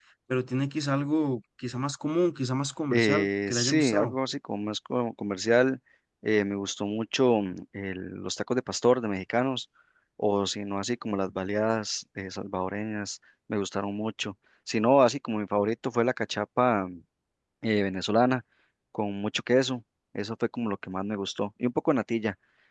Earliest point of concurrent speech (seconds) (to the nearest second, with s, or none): 3 s